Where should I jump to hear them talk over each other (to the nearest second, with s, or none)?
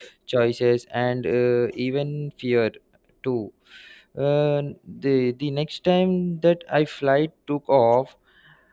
none